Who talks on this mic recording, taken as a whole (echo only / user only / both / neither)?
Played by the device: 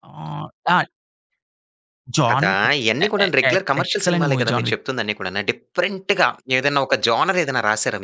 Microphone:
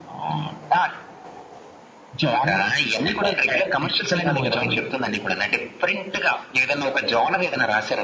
echo only